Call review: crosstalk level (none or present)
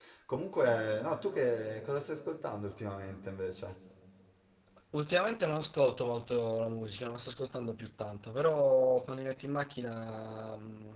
none